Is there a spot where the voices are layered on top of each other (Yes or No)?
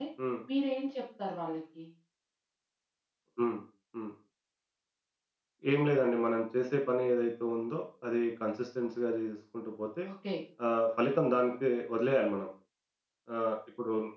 No